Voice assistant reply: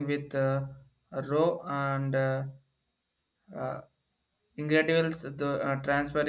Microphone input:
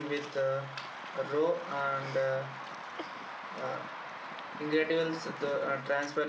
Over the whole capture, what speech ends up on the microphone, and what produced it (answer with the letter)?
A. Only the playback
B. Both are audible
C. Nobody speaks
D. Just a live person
A